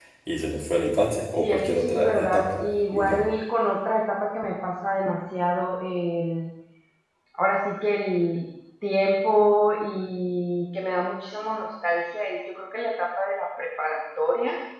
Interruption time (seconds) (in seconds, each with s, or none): 1.4 s